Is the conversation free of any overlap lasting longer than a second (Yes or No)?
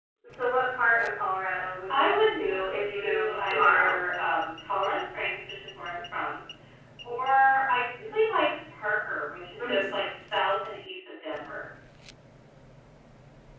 No